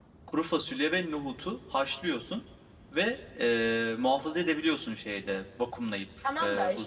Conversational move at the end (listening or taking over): taking over